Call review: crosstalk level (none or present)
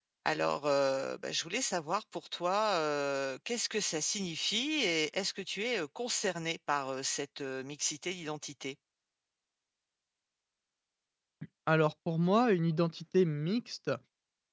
none